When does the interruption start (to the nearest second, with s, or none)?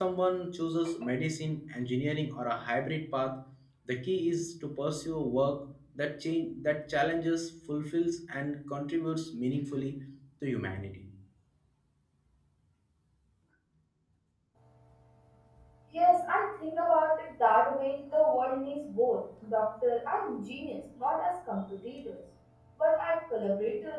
none